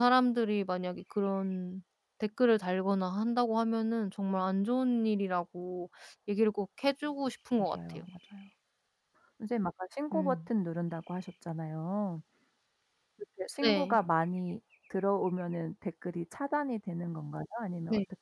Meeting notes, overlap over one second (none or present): none